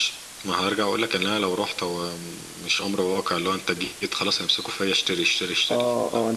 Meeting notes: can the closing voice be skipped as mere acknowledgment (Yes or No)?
No